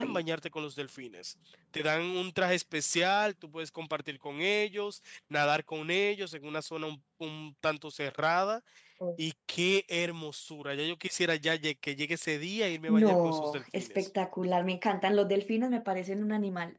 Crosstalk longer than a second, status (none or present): present